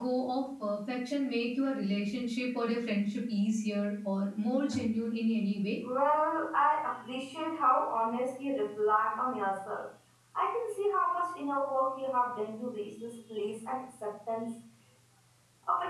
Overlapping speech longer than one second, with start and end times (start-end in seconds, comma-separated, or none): none